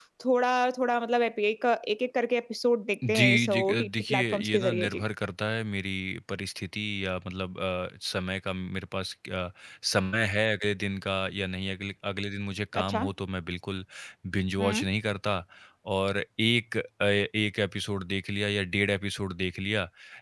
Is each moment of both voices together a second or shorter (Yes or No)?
No